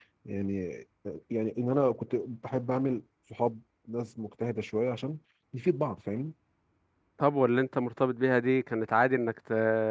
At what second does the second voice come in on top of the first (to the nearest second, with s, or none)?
none